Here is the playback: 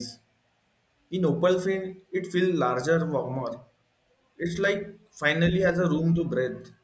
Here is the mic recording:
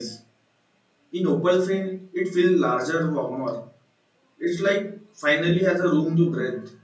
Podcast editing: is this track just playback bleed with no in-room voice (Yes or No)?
Yes